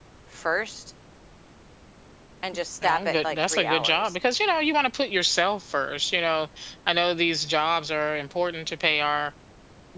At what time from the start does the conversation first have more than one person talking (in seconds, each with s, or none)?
2.8 s